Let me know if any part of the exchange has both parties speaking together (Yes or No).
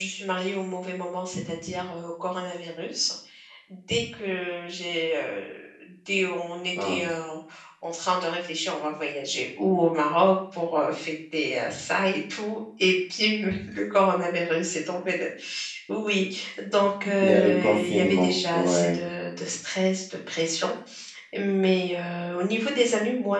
Yes